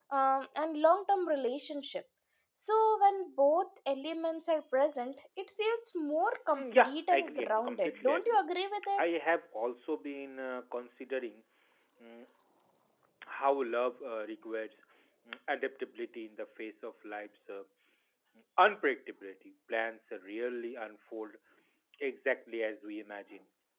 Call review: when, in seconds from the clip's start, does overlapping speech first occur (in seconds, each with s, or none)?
6.5 s